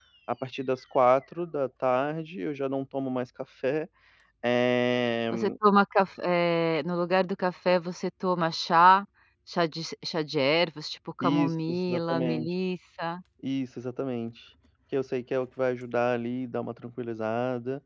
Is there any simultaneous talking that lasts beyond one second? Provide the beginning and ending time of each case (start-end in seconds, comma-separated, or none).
11.2-12.5